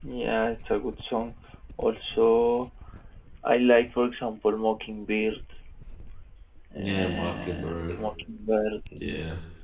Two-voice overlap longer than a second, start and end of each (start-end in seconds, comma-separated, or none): 6.8-8.0